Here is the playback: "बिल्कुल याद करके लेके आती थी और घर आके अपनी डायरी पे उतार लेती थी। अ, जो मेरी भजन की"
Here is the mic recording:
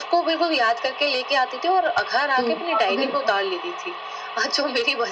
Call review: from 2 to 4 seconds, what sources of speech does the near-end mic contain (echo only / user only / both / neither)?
both